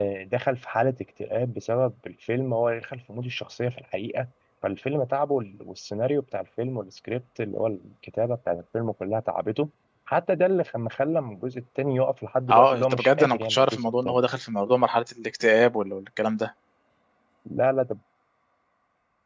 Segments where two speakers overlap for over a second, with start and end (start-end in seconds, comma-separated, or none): 12.5-14.2